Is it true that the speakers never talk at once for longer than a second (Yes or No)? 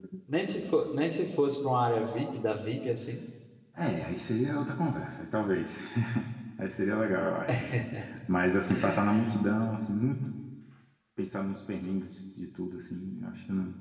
Yes